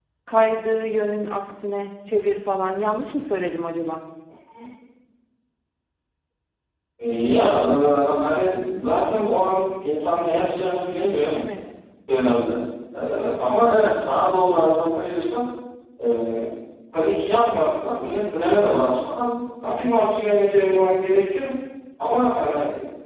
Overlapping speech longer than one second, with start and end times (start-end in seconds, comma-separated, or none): none